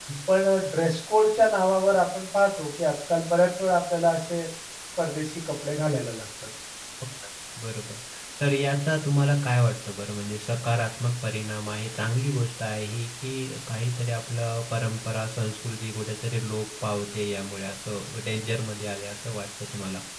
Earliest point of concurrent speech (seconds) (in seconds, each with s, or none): none